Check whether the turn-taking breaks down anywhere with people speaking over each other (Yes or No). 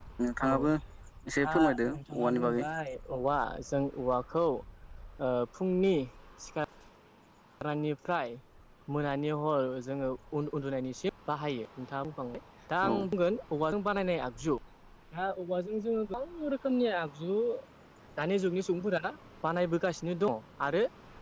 Yes